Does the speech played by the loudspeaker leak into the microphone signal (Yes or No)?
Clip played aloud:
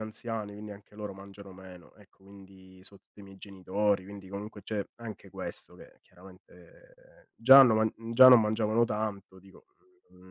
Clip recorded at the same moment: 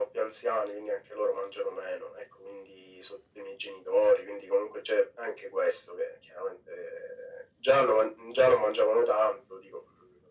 Yes